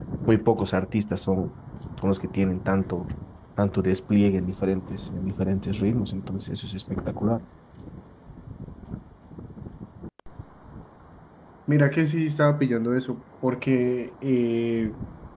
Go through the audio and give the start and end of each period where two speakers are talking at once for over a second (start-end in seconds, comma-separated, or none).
none